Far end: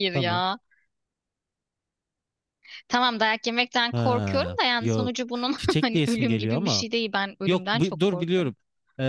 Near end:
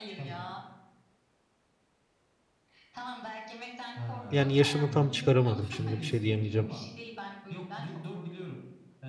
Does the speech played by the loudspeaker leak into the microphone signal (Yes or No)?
Yes